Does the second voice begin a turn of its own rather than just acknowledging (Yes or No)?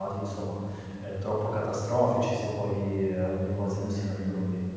Yes